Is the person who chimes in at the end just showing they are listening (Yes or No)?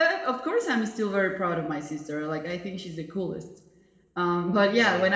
Yes